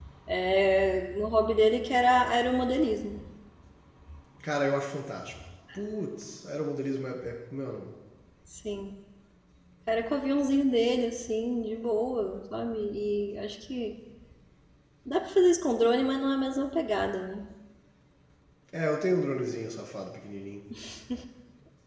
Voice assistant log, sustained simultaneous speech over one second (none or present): none